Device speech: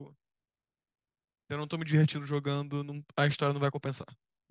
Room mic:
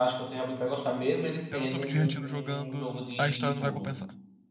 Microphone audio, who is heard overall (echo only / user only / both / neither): both